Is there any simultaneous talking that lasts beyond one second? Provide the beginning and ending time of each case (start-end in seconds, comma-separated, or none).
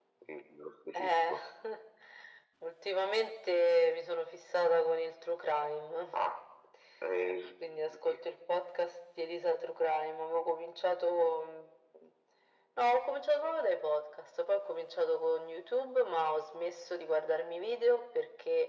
none